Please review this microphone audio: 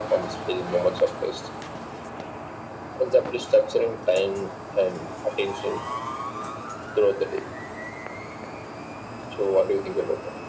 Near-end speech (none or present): none